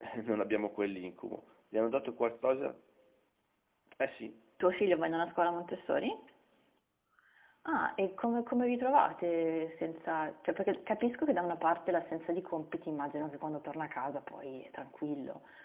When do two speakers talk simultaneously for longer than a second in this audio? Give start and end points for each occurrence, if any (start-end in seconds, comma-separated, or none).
none